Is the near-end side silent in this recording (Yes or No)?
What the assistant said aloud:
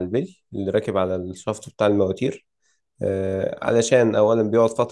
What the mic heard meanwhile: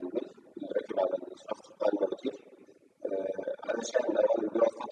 Yes